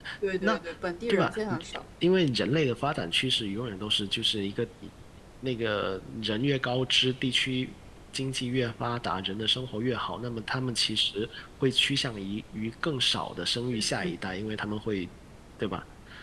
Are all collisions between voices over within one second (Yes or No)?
Yes